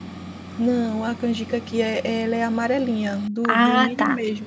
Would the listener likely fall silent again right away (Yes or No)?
No